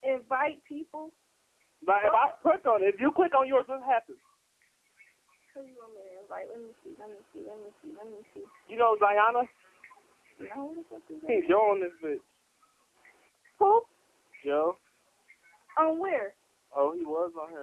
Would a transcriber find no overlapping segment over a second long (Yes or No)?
Yes